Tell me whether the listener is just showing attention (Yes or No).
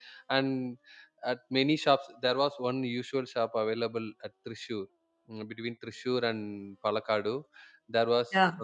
Yes